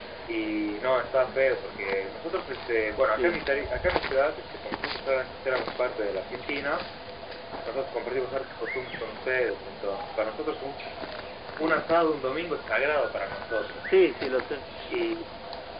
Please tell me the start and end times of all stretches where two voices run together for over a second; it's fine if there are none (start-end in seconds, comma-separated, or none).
none